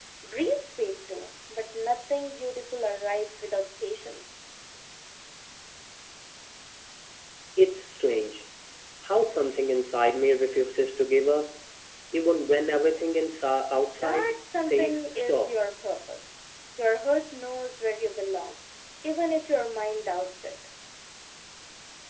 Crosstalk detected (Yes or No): Yes